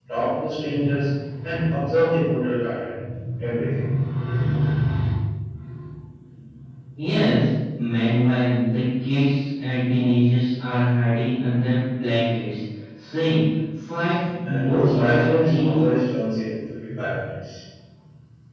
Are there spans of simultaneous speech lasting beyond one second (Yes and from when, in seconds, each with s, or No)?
Yes, from 14.5 s